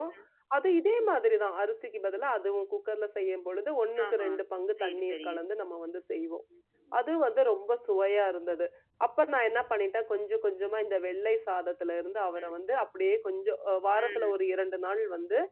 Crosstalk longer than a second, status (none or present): none